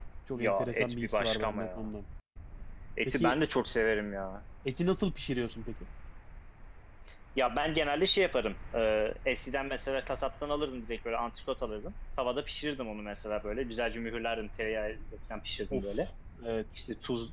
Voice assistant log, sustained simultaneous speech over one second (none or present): present